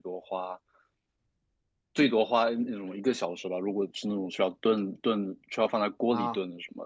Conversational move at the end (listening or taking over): listening